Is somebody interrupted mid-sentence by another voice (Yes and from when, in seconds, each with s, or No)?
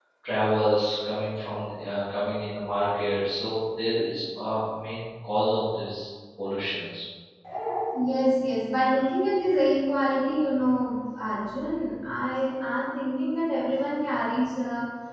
No